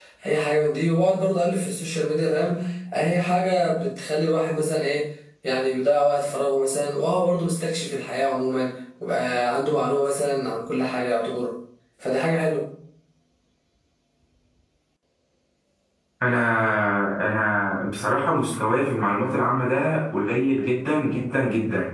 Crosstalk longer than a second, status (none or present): none